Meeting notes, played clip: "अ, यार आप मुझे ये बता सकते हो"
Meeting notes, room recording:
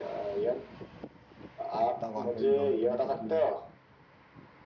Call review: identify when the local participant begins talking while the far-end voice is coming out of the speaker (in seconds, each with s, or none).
1.8 s